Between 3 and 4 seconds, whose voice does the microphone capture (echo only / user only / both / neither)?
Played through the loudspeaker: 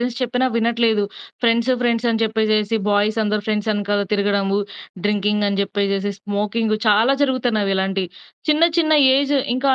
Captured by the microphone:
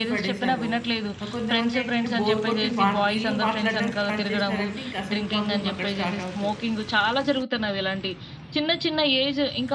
both